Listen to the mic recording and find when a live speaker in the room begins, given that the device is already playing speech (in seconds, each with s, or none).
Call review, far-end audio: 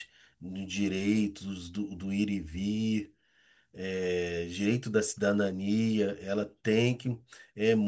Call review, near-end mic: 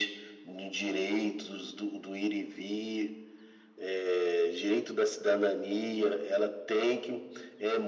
none